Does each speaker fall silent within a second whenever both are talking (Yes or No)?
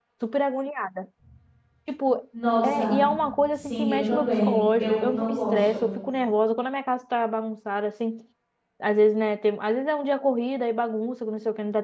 No